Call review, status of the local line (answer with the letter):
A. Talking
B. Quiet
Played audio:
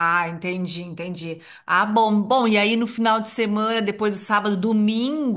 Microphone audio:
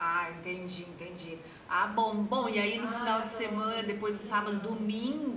A